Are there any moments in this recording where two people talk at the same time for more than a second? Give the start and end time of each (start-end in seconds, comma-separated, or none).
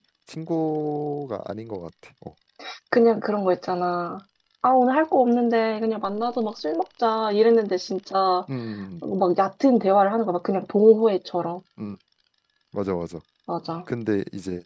none